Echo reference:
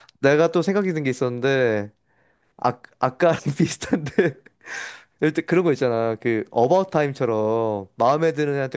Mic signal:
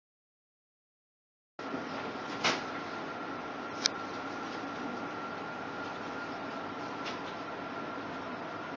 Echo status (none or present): none